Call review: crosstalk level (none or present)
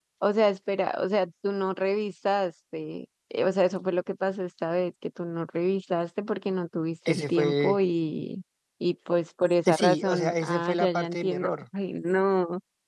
present